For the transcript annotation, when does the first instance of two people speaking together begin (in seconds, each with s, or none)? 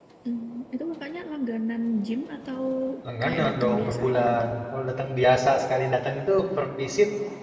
3.2 s